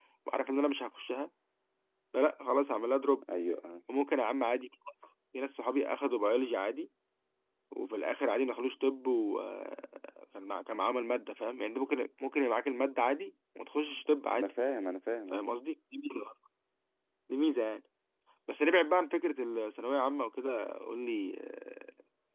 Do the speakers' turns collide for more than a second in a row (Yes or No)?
No